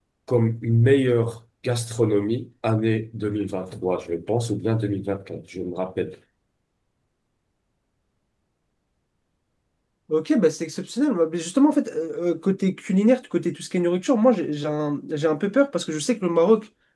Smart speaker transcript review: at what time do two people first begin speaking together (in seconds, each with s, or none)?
none